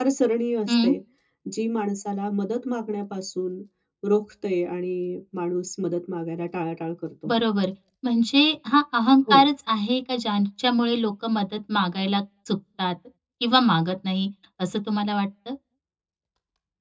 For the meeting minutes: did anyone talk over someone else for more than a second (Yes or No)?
No